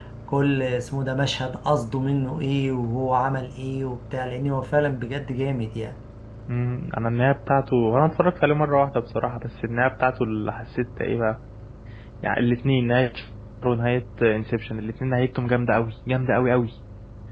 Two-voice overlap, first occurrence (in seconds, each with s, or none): none